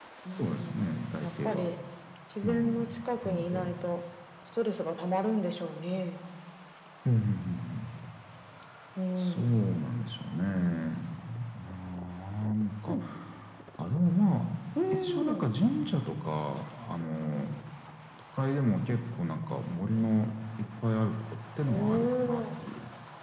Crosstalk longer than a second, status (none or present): present